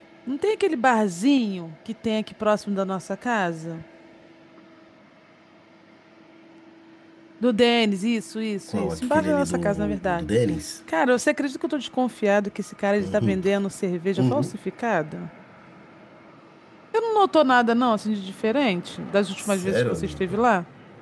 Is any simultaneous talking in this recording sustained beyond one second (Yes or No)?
Yes